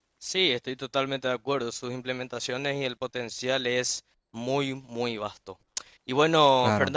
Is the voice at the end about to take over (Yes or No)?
No